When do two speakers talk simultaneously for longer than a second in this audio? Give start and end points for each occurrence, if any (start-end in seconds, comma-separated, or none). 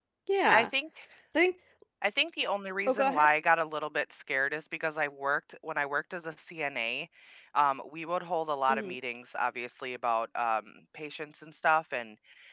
none